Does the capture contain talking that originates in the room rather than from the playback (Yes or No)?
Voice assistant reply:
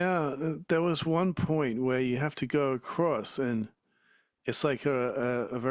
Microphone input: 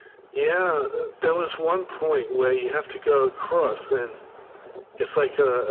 No